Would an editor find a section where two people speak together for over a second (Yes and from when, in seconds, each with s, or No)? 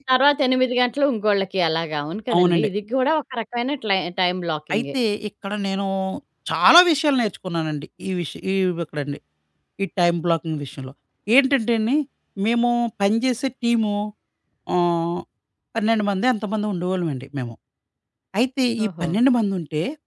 No